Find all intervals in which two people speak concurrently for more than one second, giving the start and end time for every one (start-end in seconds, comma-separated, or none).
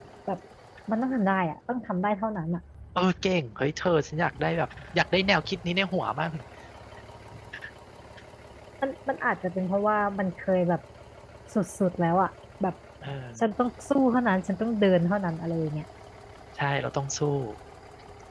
none